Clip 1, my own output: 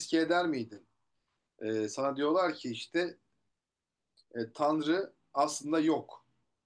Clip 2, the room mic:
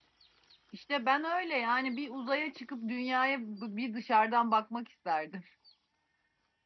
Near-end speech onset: 0.7 s

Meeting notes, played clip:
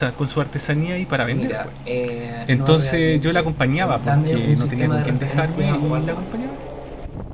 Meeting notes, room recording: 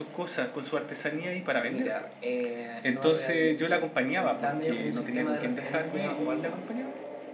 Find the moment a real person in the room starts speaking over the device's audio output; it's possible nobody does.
none

